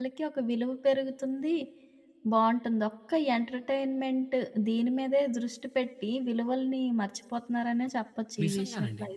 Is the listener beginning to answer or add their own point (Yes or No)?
Yes